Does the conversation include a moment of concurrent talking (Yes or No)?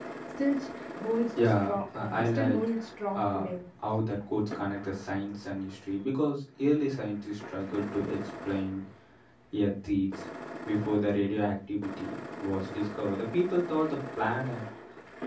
Yes